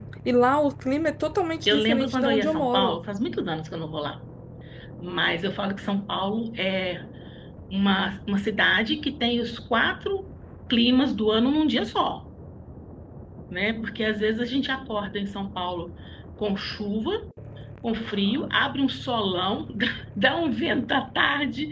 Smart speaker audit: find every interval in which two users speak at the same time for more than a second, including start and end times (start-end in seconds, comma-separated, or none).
1.7-3.0